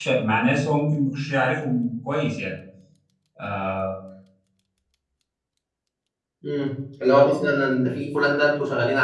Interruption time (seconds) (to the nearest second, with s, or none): none